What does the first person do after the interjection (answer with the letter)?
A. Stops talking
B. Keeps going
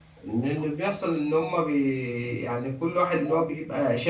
B